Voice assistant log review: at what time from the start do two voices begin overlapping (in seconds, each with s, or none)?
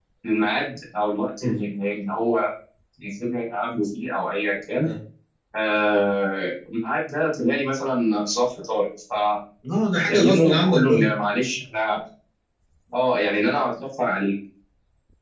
9.8 s